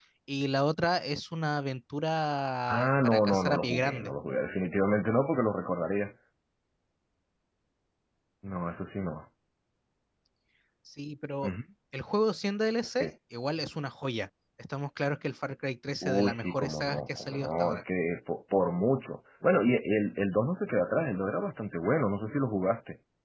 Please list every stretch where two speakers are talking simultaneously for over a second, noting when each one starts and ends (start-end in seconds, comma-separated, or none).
2.7-4.1, 16.0-17.8